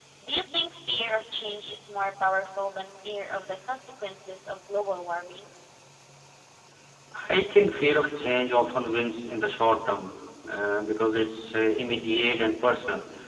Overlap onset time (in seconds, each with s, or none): none